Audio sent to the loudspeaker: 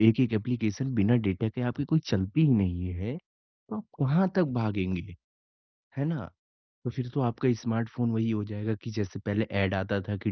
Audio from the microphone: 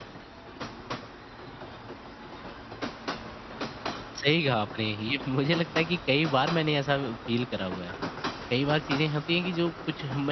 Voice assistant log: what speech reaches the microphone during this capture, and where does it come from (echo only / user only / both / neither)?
user only